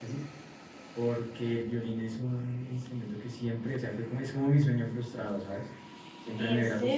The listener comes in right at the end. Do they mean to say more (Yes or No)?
No